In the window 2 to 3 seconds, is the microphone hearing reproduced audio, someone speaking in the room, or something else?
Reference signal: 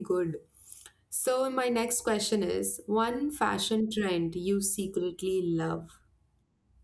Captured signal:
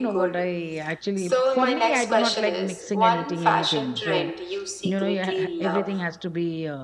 both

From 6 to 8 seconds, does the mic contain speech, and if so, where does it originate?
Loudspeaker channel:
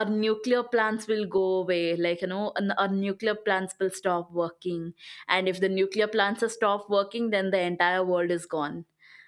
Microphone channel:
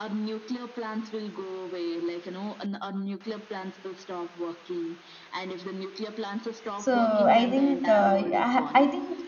both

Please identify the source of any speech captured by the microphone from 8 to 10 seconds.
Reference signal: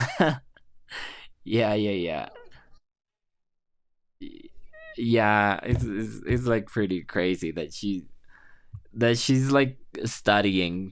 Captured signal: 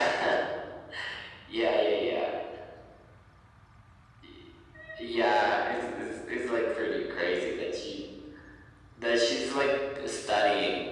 echo only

